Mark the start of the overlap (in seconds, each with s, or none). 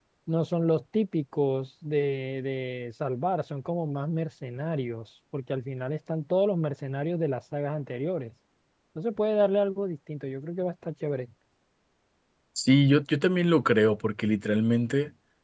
none